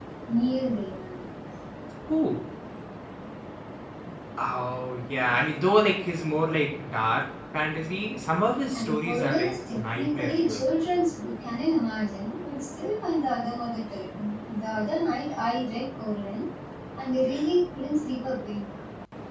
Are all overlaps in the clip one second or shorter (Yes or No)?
No